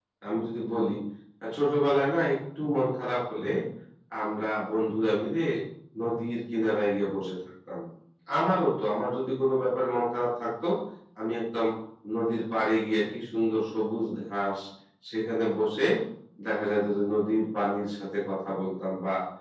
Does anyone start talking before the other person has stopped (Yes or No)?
No